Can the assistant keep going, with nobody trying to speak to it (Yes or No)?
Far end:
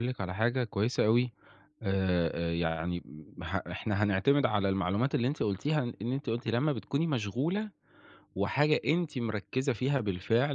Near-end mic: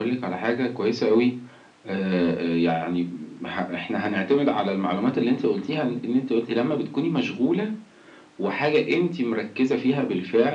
Yes